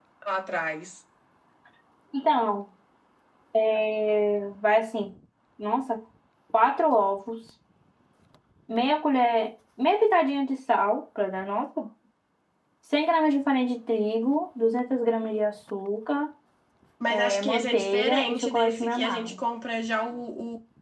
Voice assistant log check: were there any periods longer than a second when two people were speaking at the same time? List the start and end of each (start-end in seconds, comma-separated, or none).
17.1-19.3